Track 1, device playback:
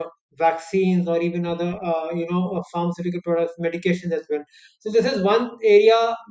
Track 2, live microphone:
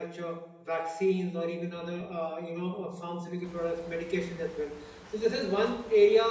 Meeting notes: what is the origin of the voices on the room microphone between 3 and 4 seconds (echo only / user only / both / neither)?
echo only